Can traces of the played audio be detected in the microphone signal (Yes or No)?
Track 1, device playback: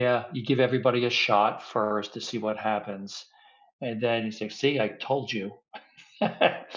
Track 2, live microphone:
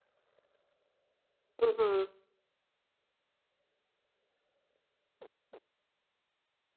No